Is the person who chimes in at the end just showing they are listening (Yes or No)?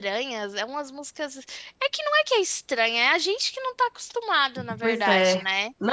No